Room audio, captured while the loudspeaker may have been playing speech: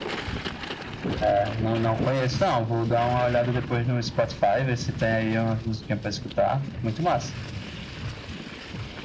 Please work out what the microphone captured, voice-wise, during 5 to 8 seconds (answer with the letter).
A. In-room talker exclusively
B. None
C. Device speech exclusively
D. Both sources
C